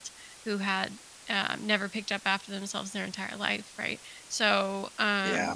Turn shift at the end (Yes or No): No